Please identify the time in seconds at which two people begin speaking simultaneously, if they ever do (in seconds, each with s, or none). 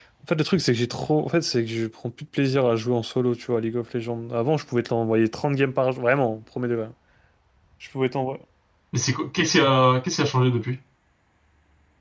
none